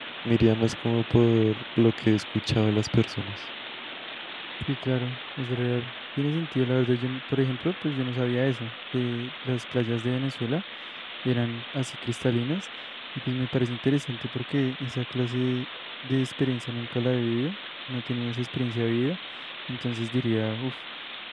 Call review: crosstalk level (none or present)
none